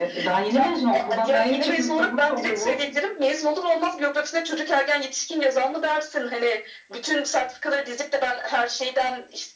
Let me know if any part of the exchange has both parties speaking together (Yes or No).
Yes